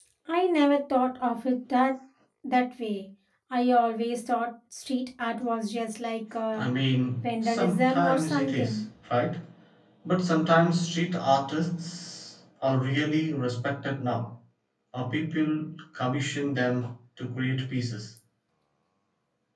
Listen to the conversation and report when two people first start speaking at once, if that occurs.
7.2 s

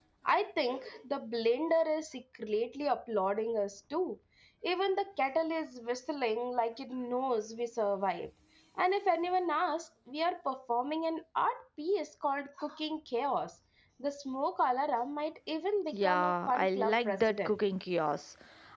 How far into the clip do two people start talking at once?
15.9 s

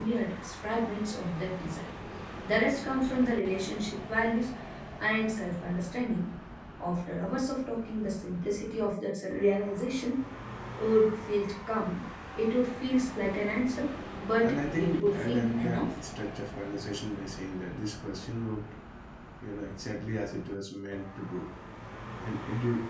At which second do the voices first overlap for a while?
14.4 s

